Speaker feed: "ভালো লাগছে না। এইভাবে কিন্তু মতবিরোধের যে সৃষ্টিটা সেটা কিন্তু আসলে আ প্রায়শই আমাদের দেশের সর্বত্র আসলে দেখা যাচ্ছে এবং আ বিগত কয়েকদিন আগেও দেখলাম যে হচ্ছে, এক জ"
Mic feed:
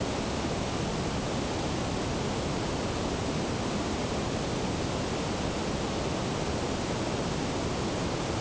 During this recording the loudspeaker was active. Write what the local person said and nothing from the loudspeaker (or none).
none